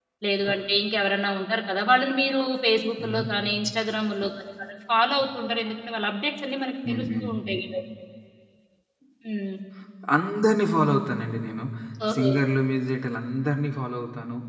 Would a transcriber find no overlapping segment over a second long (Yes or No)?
Yes